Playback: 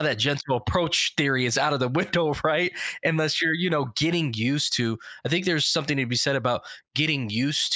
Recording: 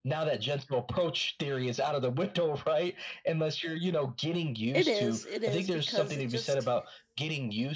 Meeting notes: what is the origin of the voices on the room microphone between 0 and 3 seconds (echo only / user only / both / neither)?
echo only